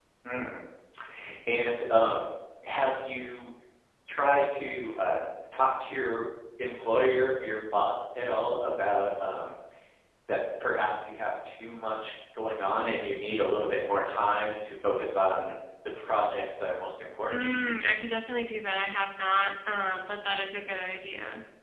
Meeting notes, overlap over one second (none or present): none